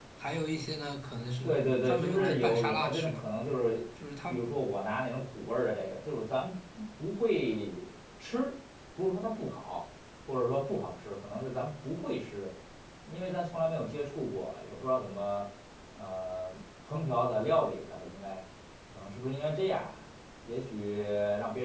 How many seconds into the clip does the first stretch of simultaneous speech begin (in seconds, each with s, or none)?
1.9 s